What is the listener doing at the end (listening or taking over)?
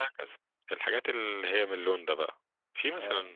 listening